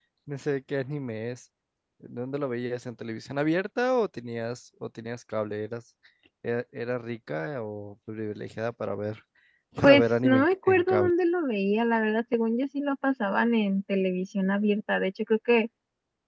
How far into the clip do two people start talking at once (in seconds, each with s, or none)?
9.8 s